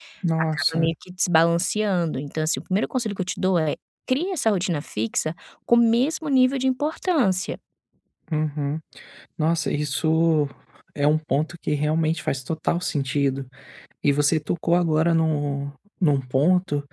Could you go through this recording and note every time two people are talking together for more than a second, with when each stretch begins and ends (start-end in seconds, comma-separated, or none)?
none